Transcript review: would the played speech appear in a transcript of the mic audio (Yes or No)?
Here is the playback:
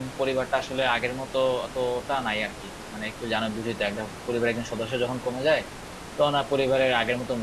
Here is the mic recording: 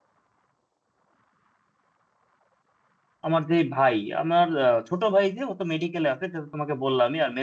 No